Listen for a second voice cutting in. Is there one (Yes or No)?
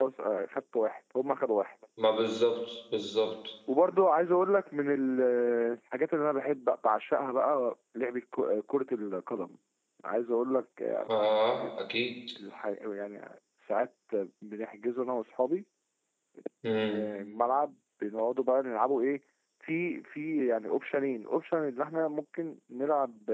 No